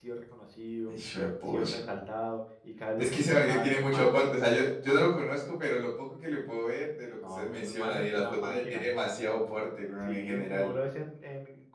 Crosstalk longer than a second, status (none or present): present